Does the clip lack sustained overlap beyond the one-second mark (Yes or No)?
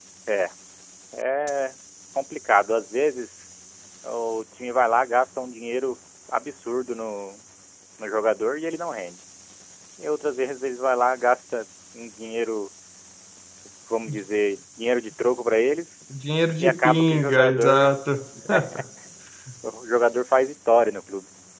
No